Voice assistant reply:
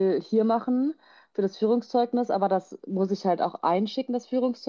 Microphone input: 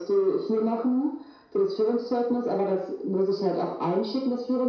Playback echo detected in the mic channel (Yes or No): Yes